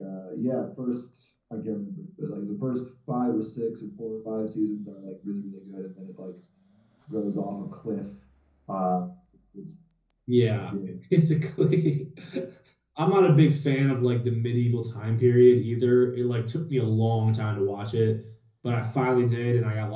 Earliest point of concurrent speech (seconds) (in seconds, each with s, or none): none